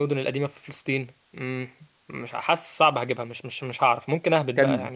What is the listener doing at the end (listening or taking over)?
taking over